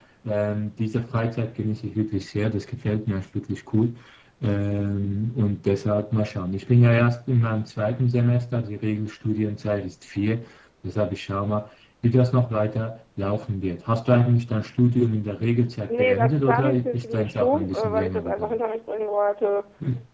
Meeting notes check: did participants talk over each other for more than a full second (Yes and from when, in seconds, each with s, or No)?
Yes, from 15.9 s